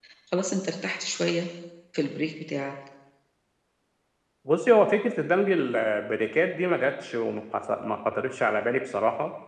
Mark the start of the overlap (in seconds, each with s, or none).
none